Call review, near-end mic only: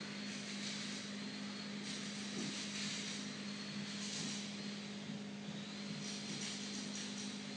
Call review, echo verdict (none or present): none